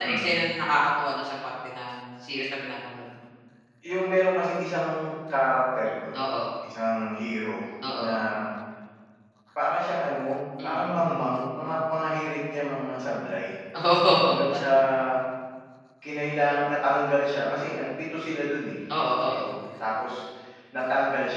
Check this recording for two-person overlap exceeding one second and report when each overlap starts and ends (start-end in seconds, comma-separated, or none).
none